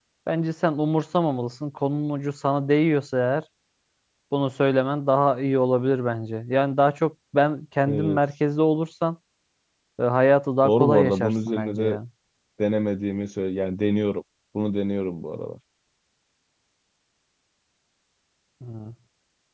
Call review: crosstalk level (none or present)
present